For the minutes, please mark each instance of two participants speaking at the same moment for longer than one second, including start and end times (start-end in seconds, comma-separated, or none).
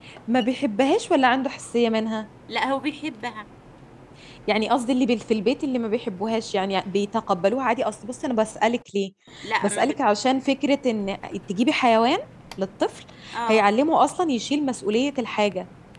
none